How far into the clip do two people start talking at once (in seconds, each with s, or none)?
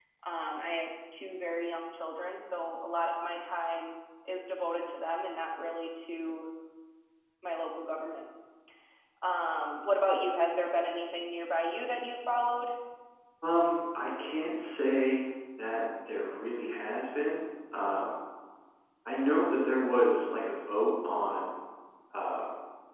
none